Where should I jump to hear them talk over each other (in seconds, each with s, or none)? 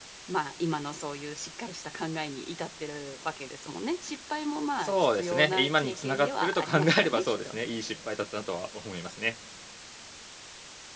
4.8 s